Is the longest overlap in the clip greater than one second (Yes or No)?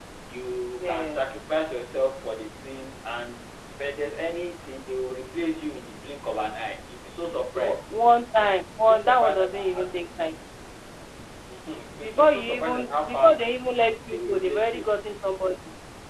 Yes